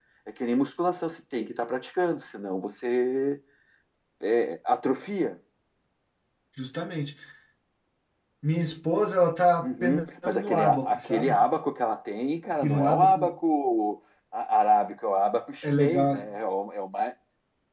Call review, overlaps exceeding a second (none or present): present